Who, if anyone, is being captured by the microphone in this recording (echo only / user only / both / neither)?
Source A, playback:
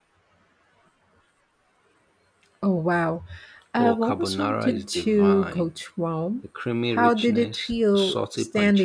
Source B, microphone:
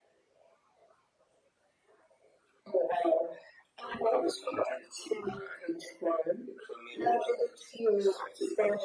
echo only